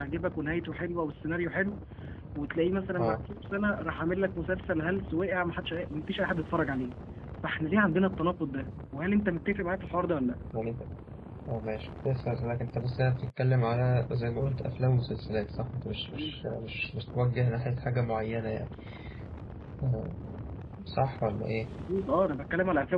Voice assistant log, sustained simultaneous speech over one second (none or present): none